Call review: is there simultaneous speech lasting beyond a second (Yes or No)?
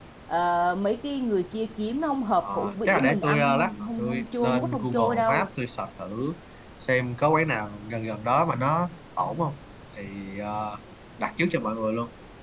Yes